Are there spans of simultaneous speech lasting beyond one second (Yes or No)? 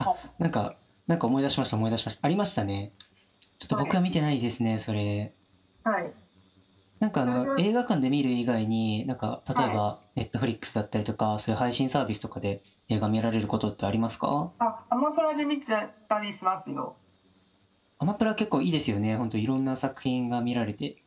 No